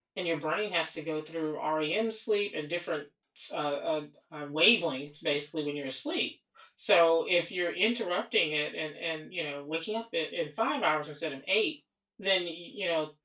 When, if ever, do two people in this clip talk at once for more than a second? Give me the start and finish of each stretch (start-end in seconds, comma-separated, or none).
none